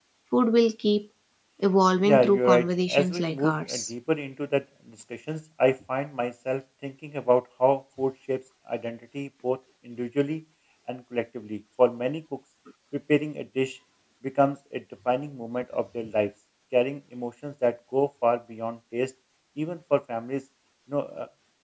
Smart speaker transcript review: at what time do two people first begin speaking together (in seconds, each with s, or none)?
2.0 s